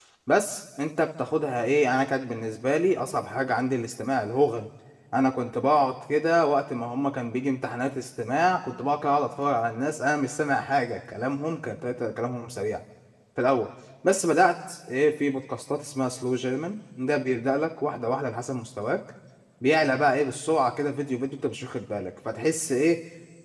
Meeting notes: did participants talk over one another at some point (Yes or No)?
No